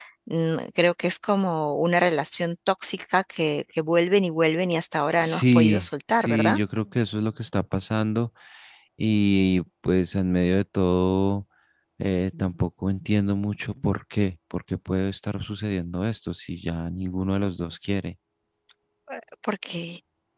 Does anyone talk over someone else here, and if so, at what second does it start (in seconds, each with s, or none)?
5.2 s